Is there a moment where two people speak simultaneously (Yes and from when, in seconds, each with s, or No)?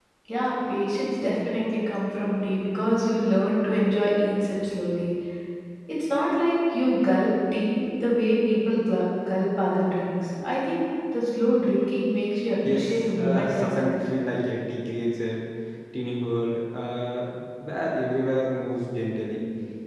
Yes, from 12.6 s